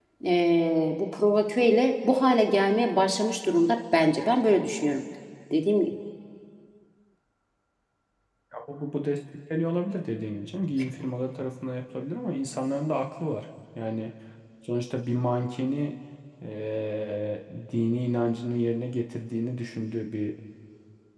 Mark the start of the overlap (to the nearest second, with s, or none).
none